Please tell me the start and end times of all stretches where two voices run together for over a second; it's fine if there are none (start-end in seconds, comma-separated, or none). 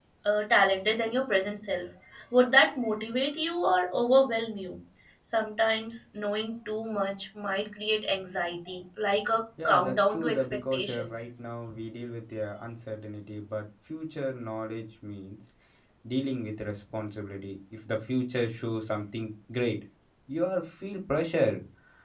9.6-11.3